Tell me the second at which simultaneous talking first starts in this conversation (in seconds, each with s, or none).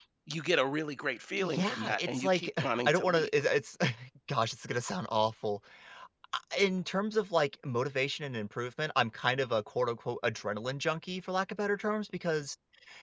1.4 s